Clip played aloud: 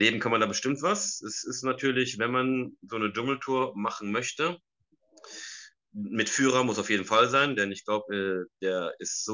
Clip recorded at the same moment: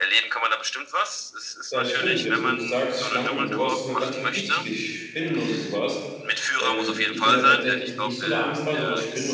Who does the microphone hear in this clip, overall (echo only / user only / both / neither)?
both